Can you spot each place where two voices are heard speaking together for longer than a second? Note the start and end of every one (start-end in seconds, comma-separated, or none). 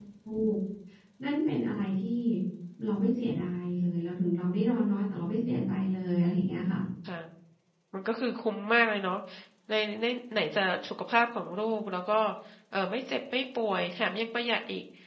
none